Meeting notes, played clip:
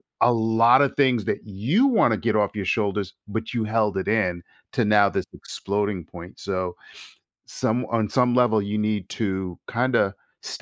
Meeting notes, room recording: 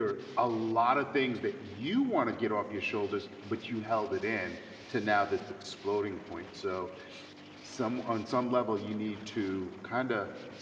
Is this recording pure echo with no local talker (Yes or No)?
Yes